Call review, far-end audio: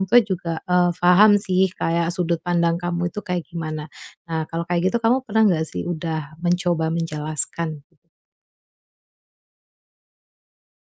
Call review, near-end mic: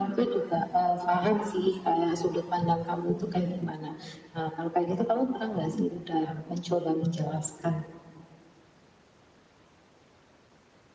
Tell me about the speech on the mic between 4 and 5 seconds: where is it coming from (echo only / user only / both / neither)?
echo only